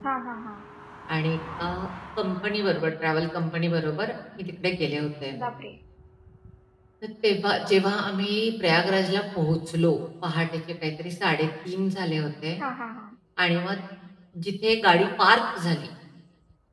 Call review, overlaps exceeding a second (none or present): none